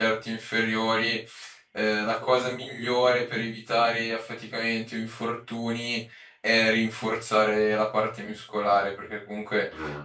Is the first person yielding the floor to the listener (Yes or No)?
No